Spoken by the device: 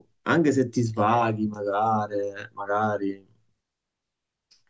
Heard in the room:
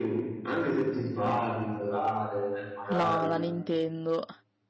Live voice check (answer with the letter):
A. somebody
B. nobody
A